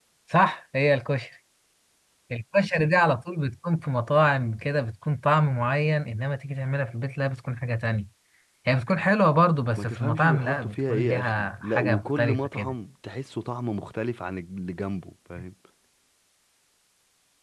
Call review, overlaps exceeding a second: present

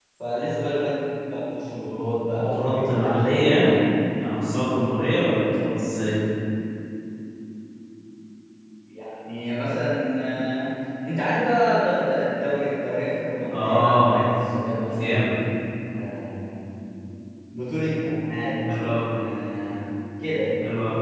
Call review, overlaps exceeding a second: present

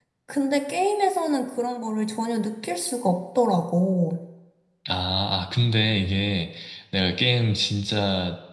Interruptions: none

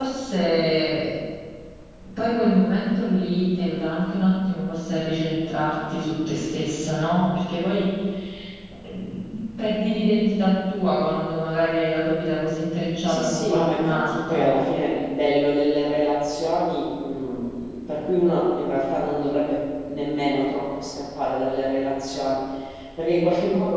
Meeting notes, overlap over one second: present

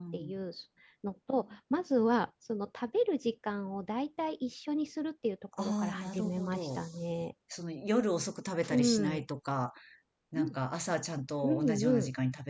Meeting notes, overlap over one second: present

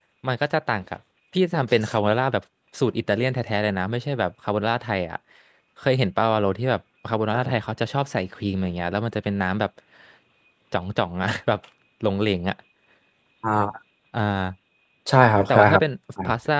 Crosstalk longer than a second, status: none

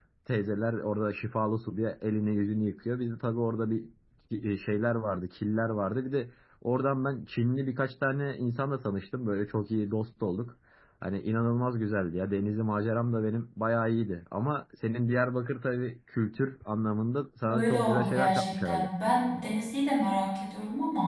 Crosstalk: present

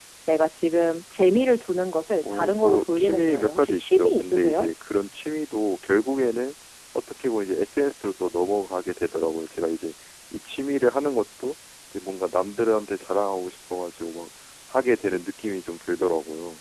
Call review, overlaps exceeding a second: present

